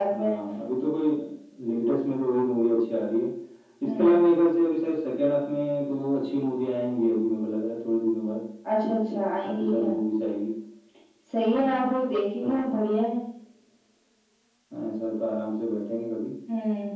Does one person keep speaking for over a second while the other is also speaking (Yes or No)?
No